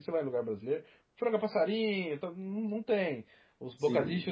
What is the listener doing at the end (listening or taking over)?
listening